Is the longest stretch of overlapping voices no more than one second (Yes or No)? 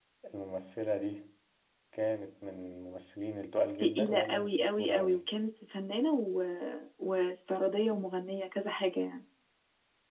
No